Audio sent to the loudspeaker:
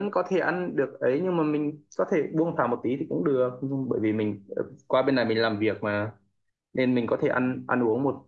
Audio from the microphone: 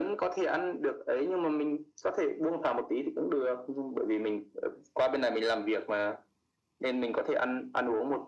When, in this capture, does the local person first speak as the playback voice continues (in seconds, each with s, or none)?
none